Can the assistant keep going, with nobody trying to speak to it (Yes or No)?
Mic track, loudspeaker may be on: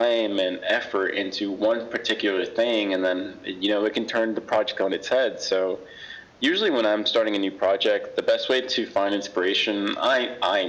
Yes